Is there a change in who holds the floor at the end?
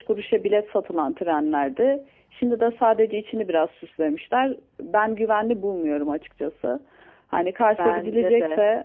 No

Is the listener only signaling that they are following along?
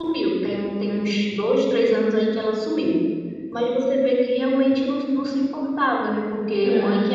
Yes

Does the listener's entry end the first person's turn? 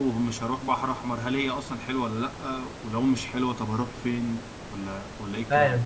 Yes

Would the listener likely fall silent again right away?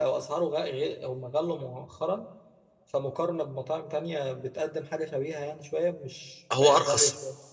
Yes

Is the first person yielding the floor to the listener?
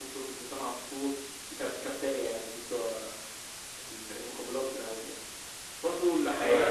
Yes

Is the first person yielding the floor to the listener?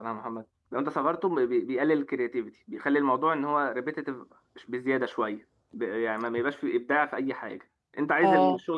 No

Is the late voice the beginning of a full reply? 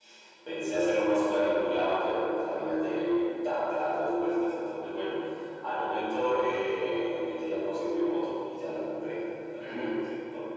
No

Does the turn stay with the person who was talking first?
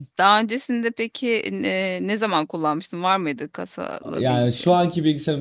No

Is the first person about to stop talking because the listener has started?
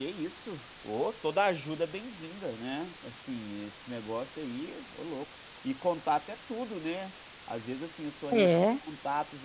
No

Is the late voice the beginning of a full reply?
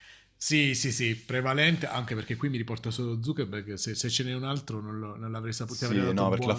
Yes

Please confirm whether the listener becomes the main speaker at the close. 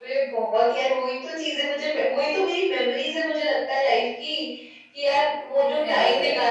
No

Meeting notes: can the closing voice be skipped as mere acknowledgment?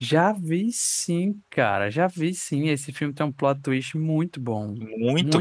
No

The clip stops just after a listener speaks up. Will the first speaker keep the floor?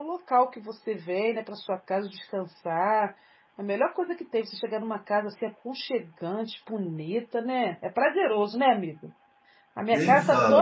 Yes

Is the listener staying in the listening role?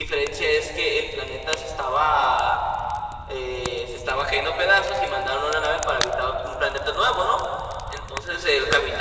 Yes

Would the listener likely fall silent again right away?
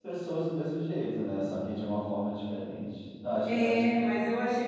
No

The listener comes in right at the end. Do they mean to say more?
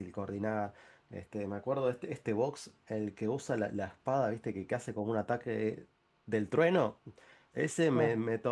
No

